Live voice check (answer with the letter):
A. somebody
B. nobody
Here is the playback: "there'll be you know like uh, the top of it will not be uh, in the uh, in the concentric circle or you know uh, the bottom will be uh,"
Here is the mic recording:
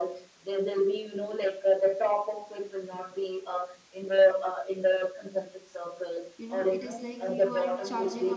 A